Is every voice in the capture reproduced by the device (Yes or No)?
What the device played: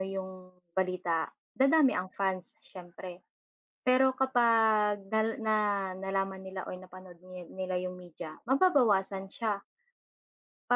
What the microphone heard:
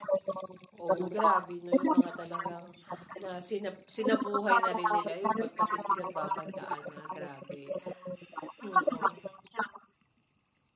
No